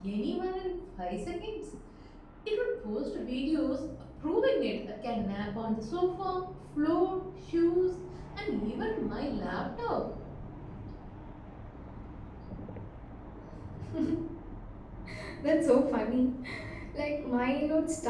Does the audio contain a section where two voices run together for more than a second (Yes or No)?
No